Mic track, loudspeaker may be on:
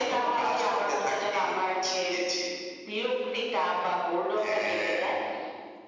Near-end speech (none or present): none